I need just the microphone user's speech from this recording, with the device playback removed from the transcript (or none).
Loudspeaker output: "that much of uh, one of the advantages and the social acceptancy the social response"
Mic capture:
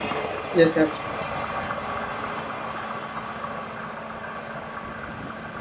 yes absolutely